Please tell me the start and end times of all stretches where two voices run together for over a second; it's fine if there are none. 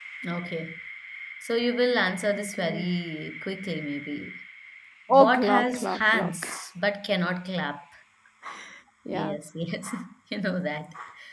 5.1-6.5

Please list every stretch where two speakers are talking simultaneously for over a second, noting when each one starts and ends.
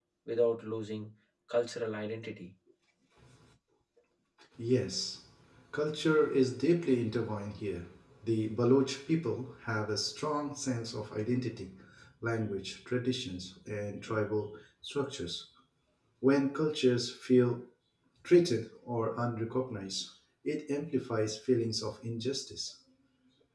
none

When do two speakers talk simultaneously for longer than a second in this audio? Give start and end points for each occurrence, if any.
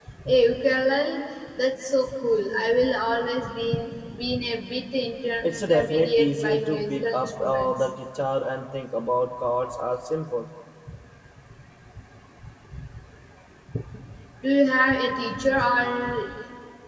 5.4-7.9

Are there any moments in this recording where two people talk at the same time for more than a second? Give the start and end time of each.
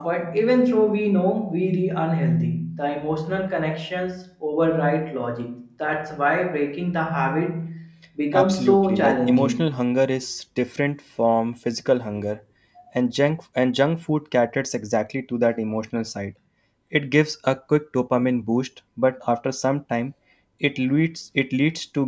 8.3-9.7

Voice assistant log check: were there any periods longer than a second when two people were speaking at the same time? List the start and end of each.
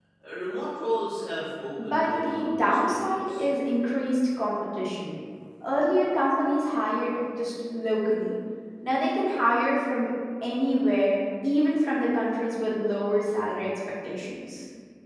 1.8-3.4

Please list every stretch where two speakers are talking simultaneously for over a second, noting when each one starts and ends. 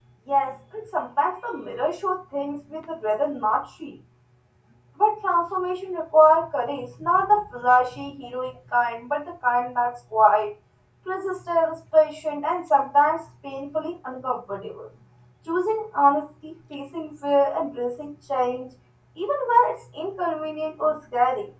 none

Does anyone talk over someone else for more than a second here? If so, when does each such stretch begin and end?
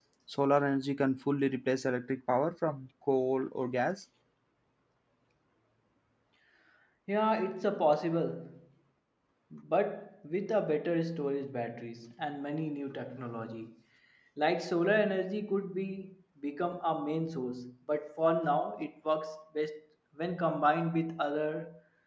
none

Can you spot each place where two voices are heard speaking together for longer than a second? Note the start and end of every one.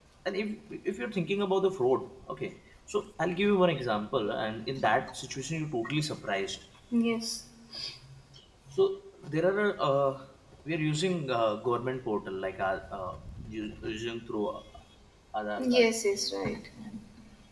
none

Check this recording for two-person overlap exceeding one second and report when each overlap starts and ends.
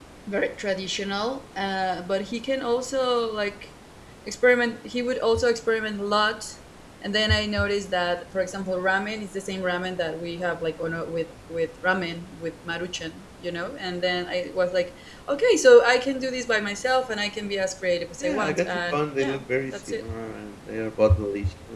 18.2-20.0

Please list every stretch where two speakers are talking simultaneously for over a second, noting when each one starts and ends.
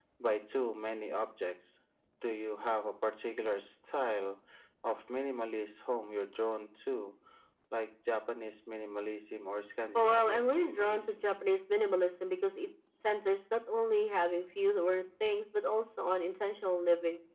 9.9-11.2

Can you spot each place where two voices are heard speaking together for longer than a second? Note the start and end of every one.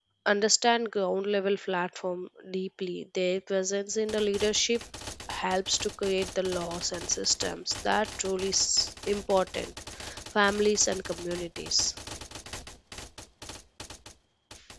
none

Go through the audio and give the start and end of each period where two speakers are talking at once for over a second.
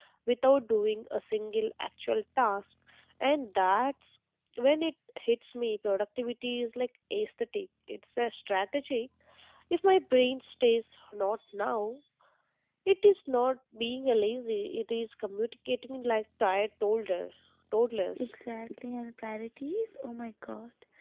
none

